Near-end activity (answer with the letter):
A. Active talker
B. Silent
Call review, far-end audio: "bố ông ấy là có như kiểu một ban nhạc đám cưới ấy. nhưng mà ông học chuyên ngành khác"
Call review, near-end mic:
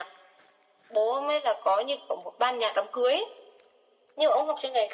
B